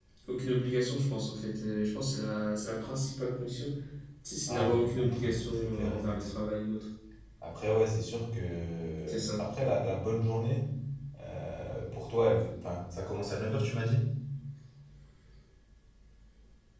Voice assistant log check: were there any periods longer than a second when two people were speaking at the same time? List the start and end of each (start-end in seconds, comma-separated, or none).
4.5-6.3